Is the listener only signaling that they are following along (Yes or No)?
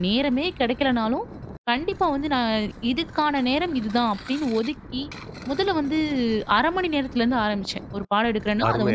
No